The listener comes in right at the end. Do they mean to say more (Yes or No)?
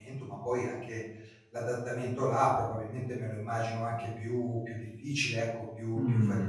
Yes